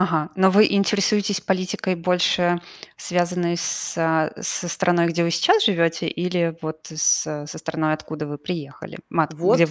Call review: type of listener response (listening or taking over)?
taking over